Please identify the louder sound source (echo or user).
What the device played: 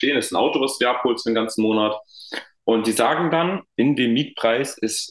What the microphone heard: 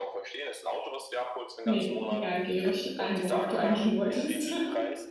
user